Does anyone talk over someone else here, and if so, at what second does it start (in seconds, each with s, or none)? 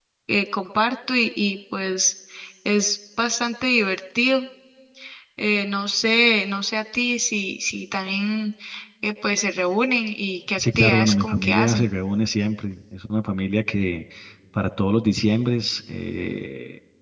10.6 s